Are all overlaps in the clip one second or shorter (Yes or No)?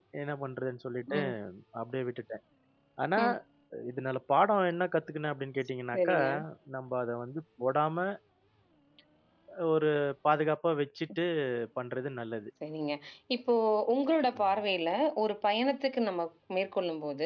Yes